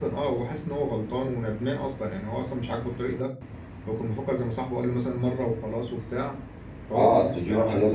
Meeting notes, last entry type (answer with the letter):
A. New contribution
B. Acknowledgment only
A